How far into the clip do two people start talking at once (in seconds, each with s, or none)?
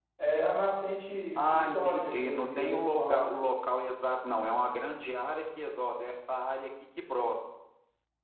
1.4 s